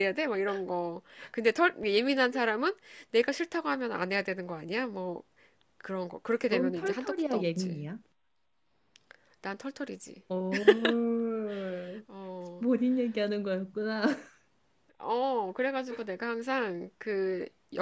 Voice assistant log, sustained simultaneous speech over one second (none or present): present